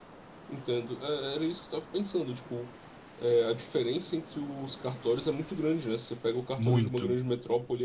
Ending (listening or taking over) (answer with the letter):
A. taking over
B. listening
B